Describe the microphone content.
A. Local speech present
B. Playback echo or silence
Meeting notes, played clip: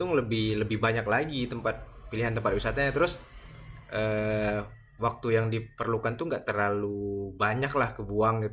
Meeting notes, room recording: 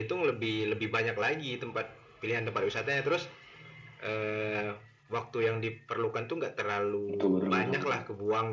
A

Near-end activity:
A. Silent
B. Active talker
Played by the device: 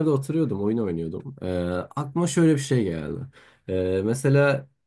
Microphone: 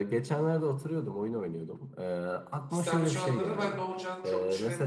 B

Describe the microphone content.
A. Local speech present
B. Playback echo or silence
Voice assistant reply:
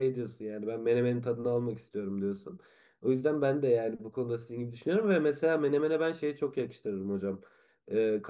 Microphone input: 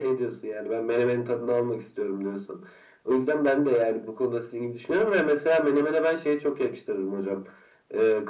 B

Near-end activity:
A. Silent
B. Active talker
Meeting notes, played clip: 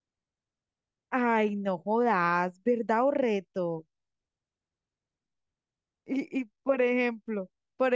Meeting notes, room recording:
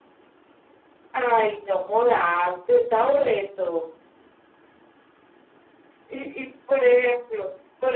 A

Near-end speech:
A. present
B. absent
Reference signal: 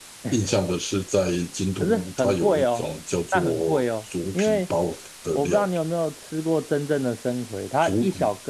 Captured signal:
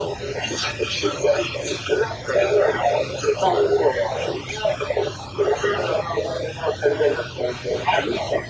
B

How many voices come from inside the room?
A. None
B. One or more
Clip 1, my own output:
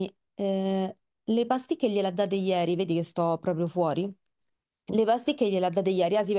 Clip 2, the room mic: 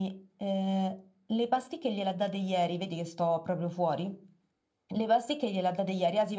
A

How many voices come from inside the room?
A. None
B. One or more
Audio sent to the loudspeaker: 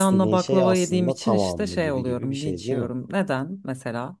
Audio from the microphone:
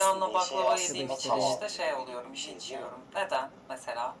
B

